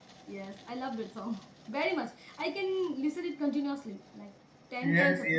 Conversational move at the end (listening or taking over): taking over